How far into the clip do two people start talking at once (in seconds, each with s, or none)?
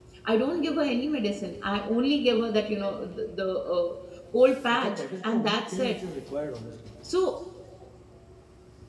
4.7 s